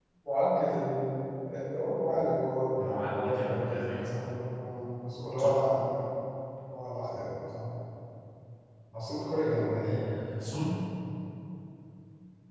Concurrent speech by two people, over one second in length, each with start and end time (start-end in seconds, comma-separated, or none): 2.8-4.3